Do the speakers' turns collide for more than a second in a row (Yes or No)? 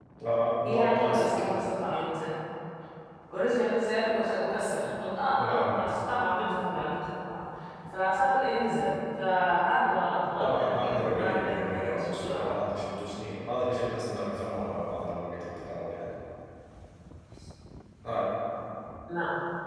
Yes